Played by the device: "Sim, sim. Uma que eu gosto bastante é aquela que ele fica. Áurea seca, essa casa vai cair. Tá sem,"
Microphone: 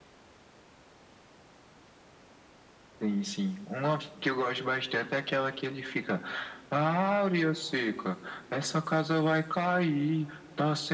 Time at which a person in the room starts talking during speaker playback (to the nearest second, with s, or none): none